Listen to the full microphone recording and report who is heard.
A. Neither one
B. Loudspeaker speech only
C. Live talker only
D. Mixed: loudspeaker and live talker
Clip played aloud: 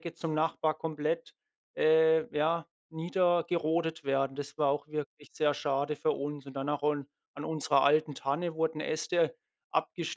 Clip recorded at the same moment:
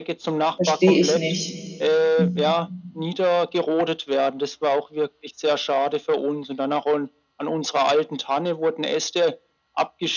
D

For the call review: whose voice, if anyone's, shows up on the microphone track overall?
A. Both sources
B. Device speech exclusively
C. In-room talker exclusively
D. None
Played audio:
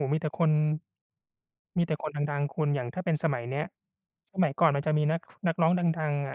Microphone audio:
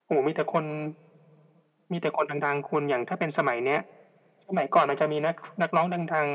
B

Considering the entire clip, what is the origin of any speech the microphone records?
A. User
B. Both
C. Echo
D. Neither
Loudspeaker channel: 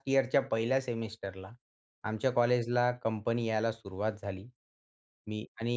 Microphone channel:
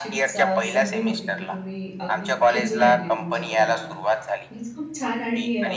B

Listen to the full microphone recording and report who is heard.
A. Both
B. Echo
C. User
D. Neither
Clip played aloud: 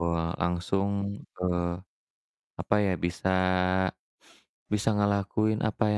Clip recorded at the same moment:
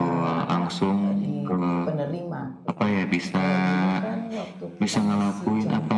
A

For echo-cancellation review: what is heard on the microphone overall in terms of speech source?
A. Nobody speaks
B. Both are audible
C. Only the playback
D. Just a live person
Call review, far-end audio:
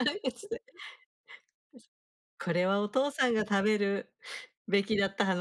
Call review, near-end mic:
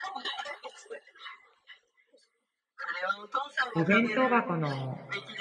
B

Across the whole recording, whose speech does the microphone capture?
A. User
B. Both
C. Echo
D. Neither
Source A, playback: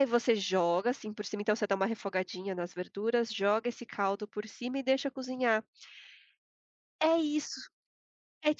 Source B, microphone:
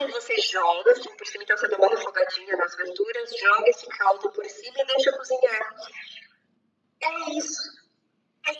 C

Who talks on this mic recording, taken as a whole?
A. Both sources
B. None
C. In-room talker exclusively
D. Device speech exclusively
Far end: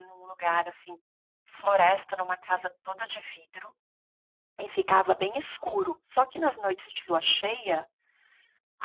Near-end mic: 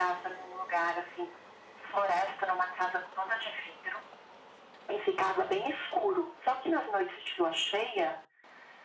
D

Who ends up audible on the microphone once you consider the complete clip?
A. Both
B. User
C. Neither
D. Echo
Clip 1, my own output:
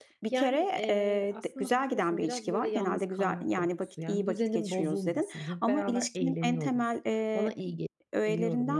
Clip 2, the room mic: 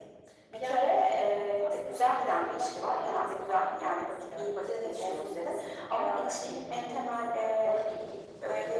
D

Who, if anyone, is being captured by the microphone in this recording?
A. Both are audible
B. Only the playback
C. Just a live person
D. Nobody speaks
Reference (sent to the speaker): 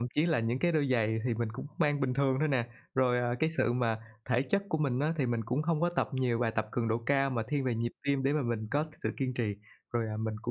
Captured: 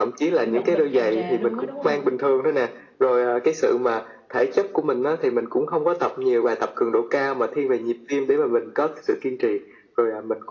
A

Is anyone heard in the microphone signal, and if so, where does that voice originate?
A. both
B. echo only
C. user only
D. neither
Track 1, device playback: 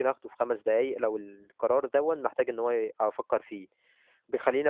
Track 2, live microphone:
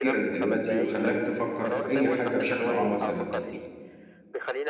A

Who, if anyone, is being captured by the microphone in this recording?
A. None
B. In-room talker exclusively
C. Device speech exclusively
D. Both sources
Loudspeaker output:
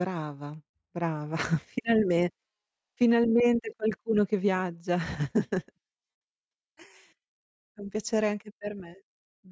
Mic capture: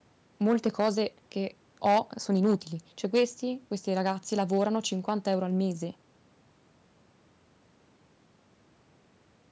B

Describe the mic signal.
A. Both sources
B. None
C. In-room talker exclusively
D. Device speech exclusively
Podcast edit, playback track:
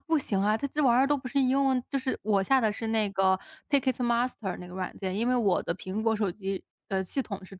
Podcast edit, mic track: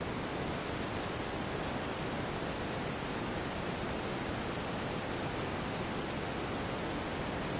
B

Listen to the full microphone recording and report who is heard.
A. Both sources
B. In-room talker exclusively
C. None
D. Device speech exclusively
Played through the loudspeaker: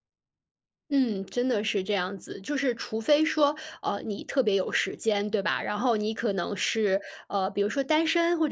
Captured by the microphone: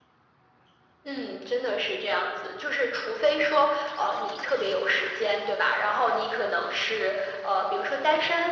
D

